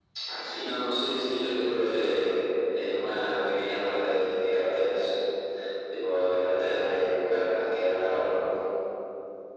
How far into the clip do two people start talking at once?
0.6 s

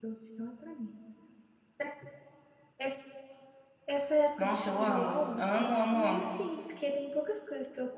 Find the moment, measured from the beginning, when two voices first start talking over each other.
4.4 s

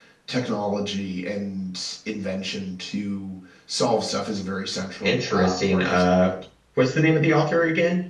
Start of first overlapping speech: 5.0 s

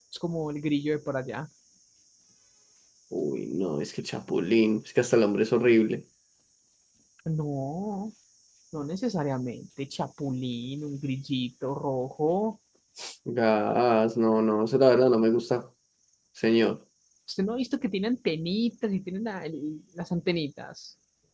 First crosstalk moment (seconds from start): none

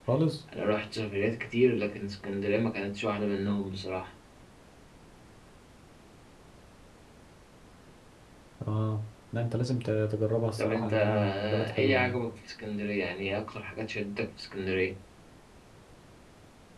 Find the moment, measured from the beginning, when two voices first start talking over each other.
10.6 s

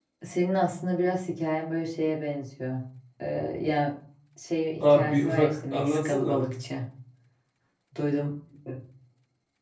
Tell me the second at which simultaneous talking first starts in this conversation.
4.8 s

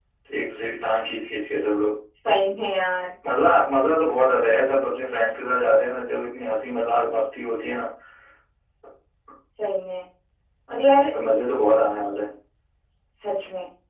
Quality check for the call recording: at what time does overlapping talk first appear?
none

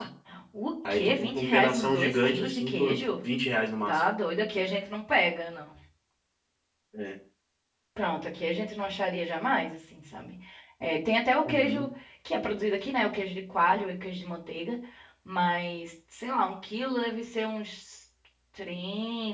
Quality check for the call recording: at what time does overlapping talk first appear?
0.9 s

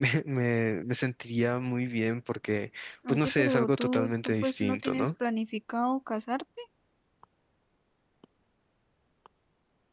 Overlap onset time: 3.0 s

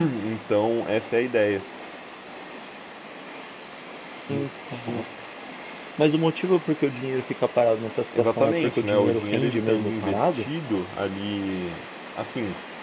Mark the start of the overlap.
8.1 s

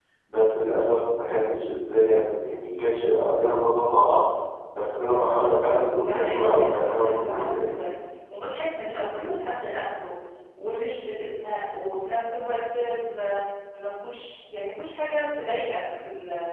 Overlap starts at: 6.0 s

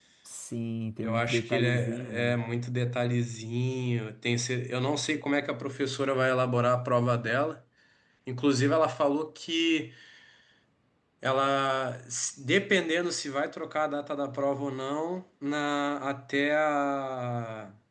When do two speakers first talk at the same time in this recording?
1.0 s

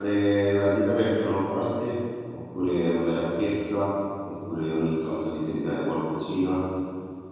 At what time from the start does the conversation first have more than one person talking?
none

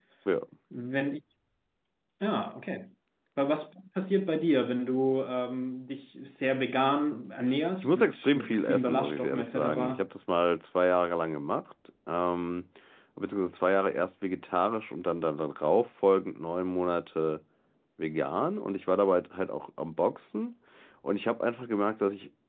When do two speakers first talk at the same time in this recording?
7.8 s

